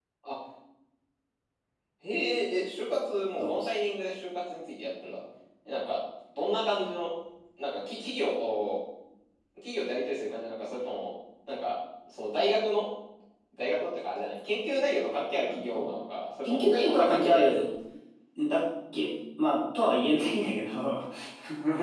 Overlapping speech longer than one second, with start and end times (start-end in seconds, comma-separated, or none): 16.4-17.6